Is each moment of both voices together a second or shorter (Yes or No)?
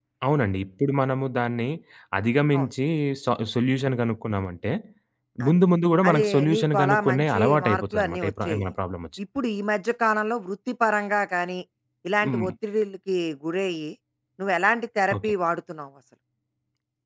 No